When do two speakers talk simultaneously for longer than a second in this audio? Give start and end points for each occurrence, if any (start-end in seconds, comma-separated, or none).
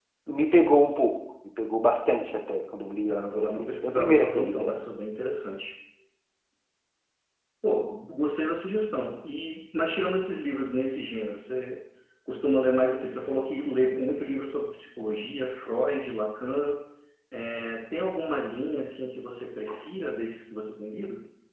3.1-4.8